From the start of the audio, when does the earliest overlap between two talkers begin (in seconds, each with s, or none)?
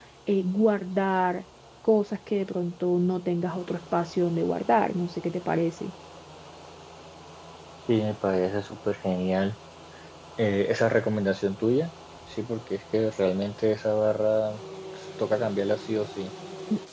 none